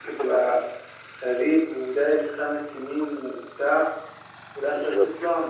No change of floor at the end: Yes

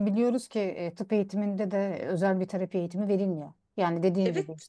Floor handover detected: No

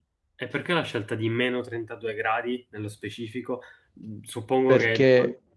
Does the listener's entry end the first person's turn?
No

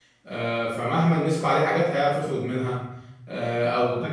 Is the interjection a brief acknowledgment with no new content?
Yes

